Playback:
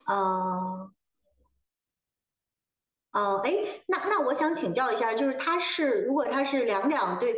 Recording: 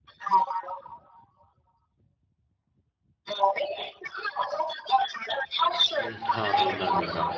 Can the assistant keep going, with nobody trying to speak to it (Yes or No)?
No